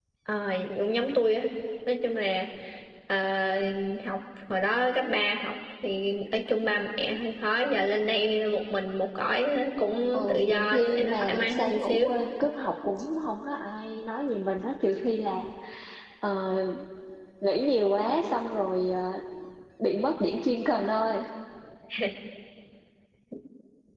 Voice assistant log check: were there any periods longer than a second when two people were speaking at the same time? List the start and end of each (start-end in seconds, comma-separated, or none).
10.2-12.1